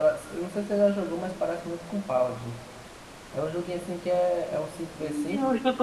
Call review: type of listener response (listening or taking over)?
taking over